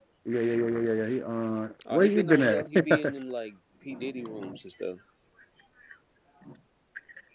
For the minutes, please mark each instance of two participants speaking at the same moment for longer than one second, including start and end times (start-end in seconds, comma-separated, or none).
1.9-3.1